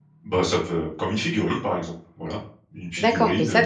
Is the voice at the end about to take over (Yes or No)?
Yes